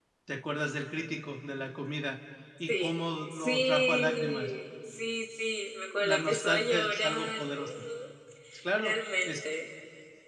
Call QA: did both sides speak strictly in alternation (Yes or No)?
No